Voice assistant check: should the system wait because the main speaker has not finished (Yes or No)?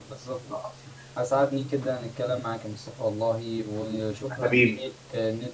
Yes